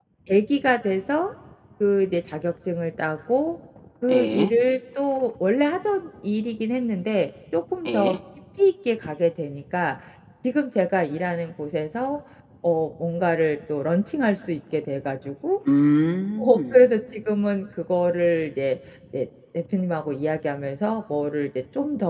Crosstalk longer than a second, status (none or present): none